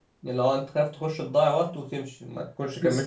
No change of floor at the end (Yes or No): No